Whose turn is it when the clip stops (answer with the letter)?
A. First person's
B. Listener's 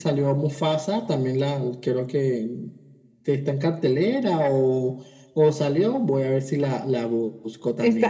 B